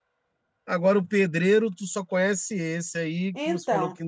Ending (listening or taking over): taking over